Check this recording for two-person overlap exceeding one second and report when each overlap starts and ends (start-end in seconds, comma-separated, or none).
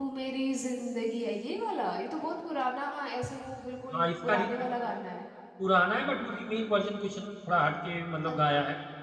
none